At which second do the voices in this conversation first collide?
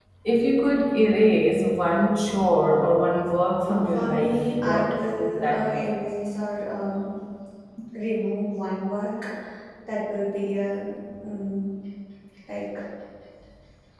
4 s

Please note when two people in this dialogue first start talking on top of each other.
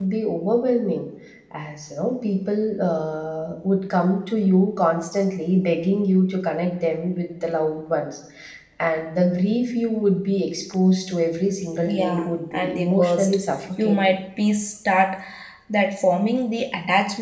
12 s

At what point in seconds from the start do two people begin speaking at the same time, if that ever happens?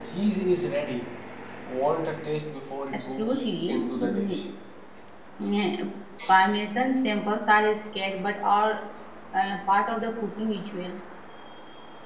3 s

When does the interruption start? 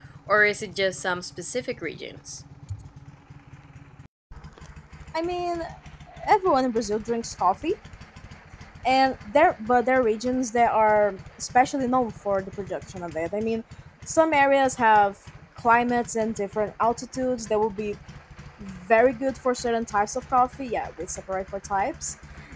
none

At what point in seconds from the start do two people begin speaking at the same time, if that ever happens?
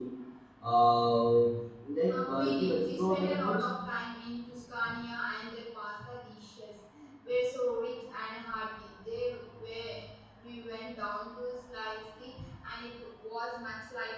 2 s

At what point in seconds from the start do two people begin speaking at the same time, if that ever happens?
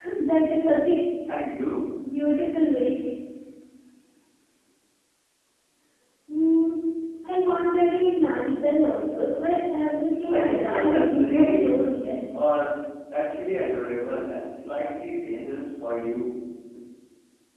10 s

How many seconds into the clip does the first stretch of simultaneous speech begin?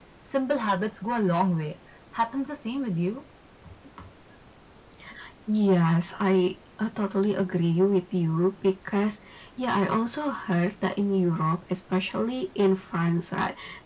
none

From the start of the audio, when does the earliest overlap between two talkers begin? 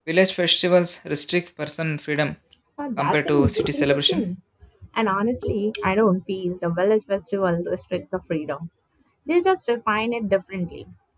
3 s

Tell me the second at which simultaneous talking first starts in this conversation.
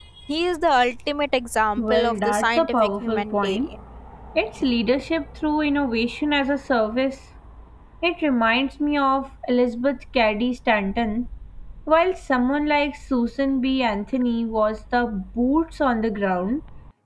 2 s

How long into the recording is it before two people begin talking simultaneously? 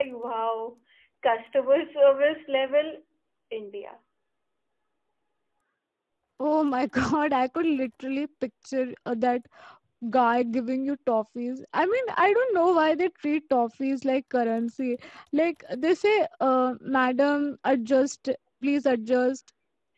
none

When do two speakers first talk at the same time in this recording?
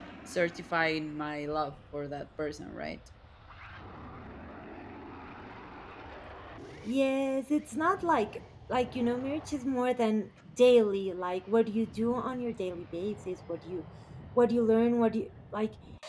none

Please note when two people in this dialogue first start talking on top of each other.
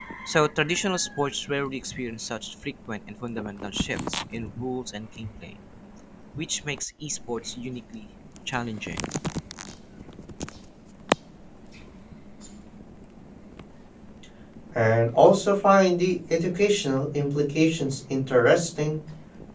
none

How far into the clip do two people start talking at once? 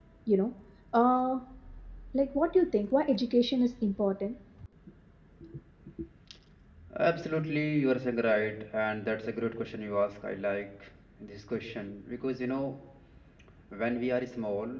none

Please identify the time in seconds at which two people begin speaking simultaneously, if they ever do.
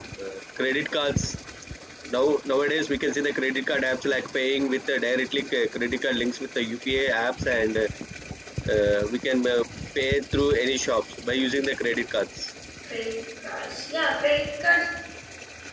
none

